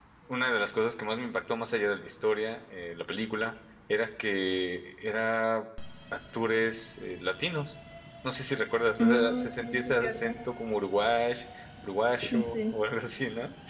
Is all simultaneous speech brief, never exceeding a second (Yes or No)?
No